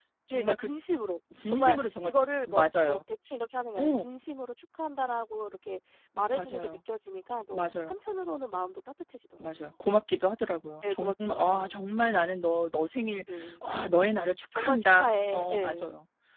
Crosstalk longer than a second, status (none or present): present